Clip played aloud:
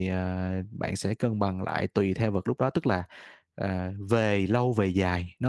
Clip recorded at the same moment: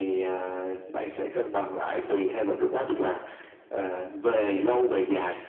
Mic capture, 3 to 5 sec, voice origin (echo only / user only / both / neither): echo only